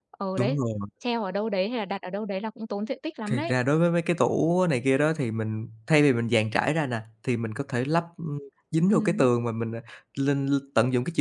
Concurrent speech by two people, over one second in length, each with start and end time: none

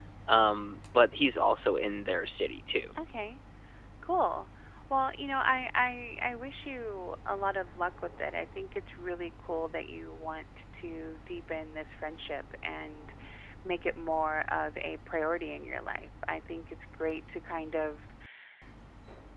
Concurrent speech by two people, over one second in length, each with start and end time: none

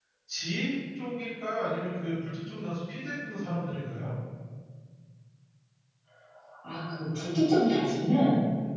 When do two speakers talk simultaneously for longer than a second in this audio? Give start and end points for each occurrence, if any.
none

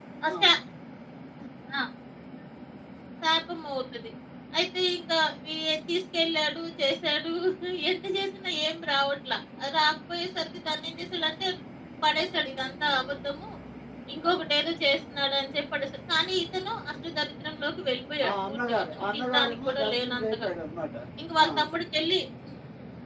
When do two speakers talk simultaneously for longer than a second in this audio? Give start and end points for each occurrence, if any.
18.3-20.5

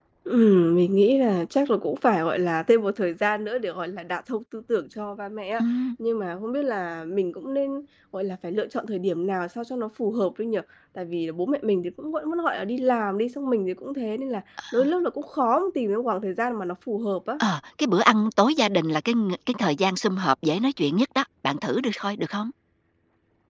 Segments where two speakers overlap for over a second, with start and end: none

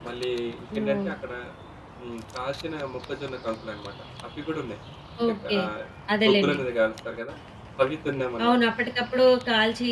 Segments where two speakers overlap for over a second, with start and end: none

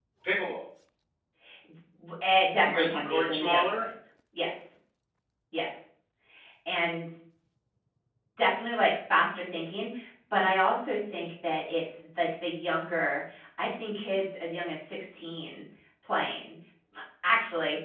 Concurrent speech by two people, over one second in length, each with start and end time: 2.6-3.8

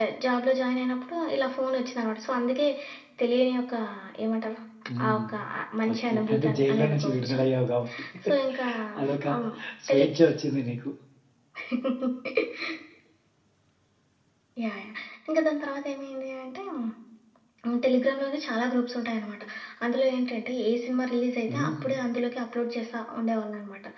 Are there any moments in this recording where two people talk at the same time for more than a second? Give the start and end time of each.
5.9-7.4

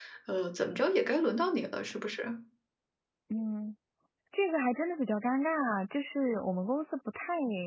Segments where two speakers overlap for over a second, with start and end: none

